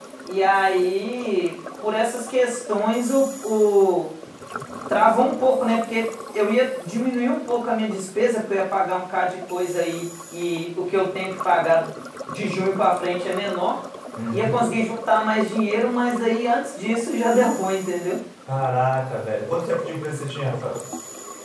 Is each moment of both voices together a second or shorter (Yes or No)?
Yes